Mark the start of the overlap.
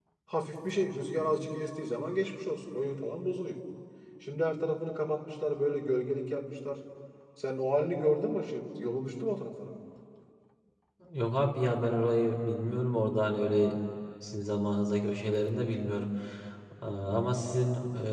none

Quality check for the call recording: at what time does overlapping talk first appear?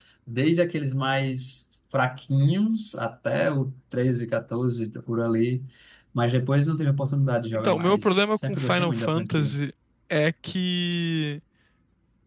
7.5 s

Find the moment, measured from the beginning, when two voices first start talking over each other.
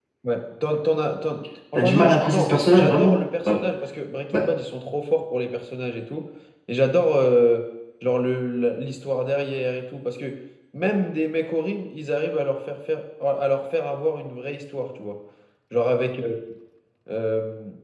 1.8 s

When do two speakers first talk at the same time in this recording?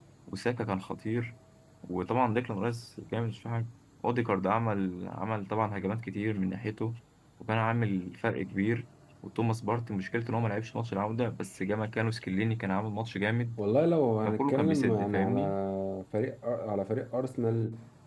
14.2 s

